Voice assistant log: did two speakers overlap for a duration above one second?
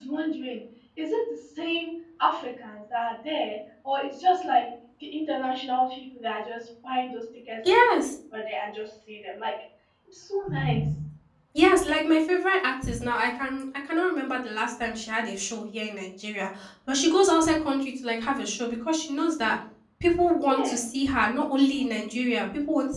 No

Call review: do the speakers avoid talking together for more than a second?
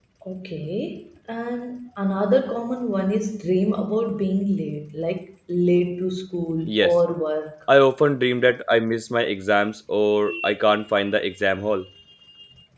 Yes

